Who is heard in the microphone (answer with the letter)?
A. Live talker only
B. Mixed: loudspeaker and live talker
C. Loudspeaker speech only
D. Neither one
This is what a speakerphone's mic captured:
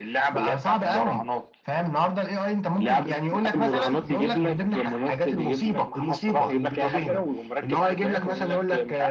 C